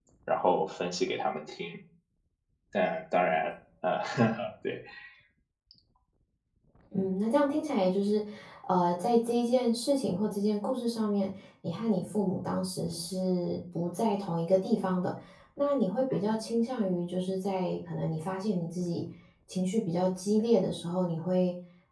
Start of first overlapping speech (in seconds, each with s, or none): none